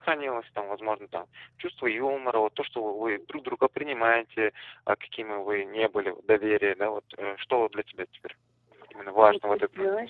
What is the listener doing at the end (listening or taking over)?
taking over